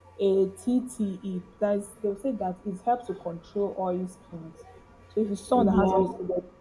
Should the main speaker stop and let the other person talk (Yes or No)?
No